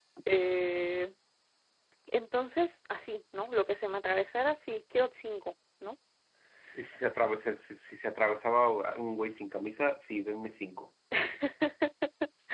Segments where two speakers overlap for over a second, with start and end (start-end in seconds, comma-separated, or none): none